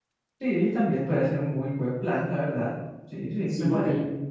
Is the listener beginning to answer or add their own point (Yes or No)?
Yes